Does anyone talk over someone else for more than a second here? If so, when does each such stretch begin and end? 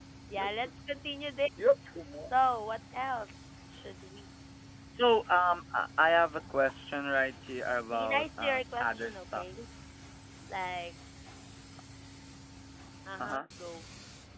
7.9-9.4

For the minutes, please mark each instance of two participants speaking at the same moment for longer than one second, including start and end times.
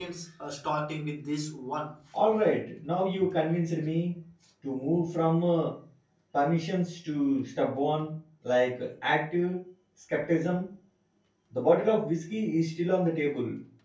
none

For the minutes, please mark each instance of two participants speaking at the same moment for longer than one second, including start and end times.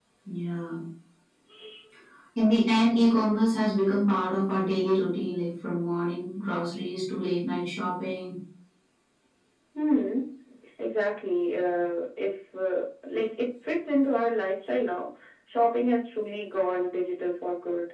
none

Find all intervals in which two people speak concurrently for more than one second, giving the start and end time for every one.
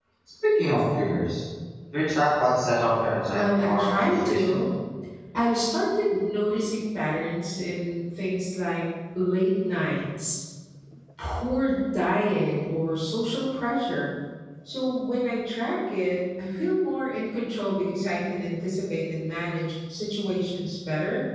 3.3-4.6

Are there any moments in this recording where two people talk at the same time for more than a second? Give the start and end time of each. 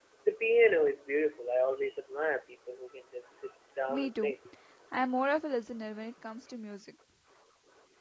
none

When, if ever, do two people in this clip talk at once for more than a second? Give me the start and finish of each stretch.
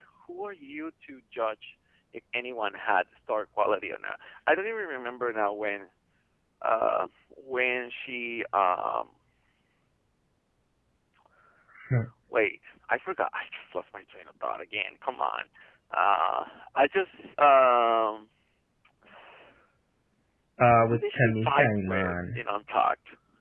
20.9-22.4

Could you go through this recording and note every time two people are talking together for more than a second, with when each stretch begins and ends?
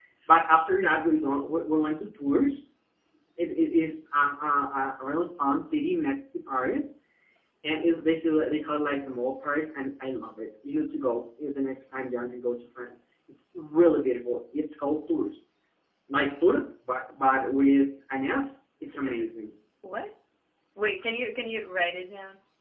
none

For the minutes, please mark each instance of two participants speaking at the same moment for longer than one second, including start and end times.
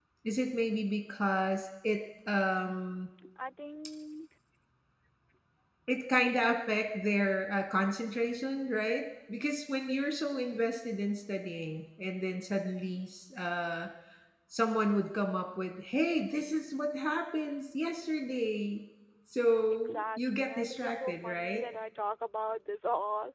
19.7-21.6

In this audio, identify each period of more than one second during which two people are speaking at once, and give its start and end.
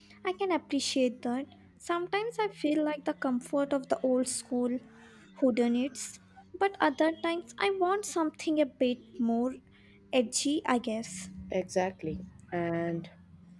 none

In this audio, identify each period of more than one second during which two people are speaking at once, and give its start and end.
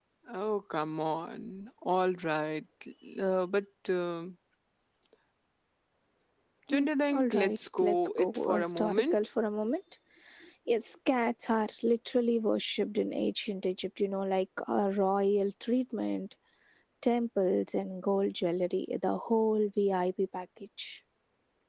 6.7-9.2

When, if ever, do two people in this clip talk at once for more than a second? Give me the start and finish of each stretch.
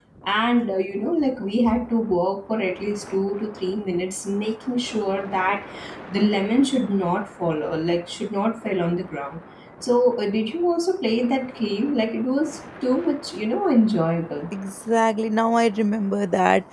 none

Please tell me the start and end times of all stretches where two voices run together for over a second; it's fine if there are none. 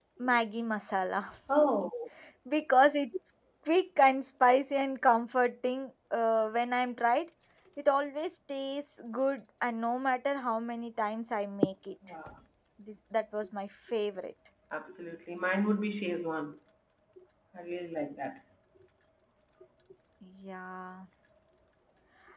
none

